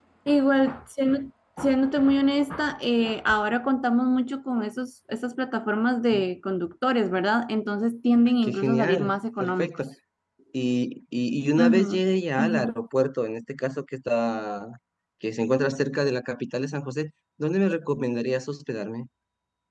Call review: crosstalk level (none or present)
present